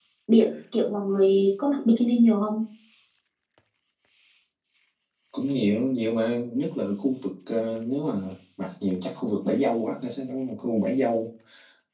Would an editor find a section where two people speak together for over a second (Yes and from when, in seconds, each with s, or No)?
No